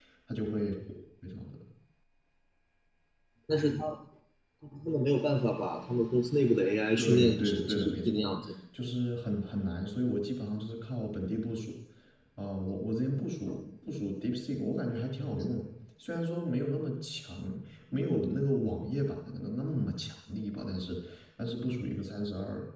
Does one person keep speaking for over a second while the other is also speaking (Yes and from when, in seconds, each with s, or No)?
Yes, from 7.0 s